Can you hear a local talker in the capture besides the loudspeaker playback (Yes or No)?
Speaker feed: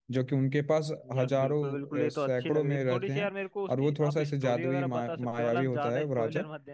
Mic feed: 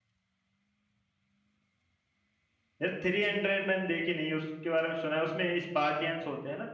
Yes